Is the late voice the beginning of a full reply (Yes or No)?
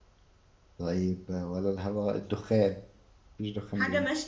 Yes